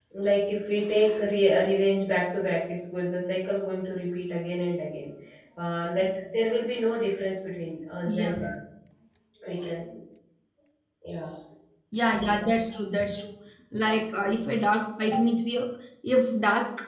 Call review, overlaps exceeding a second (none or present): none